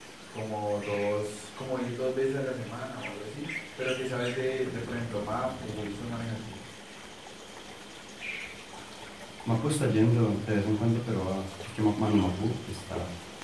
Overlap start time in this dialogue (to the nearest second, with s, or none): none